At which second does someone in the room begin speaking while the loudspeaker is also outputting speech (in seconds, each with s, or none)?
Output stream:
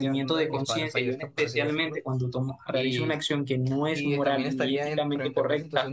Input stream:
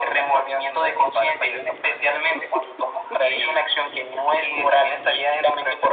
none